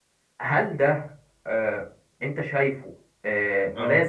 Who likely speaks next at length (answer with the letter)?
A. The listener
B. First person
B